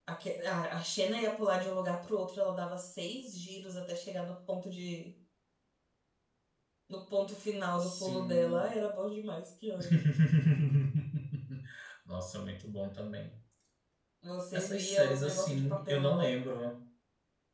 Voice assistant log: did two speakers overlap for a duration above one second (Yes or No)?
Yes